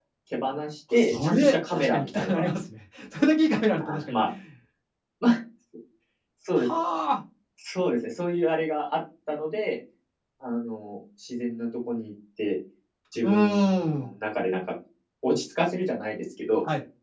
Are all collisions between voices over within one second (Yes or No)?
No